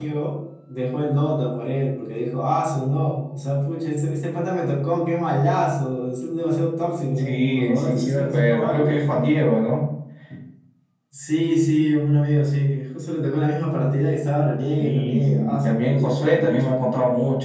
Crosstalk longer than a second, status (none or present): present